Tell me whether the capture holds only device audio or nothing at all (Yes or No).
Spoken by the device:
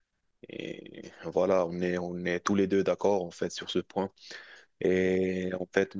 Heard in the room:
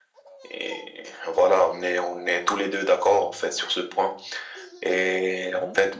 Yes